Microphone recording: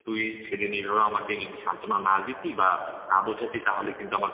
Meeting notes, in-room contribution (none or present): present